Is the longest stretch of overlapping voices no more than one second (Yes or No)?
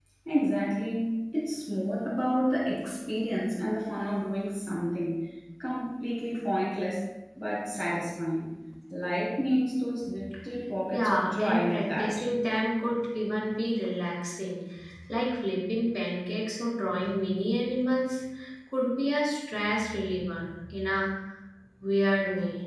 No